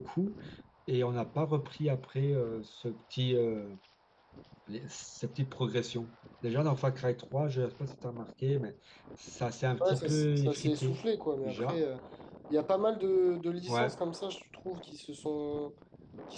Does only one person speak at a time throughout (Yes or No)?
No